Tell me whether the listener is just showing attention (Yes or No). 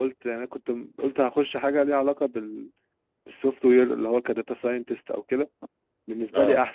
Yes